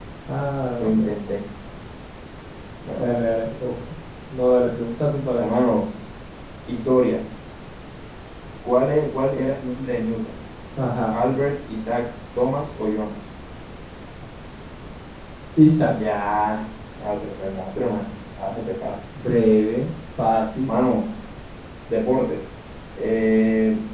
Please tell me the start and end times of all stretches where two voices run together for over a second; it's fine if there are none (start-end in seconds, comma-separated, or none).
none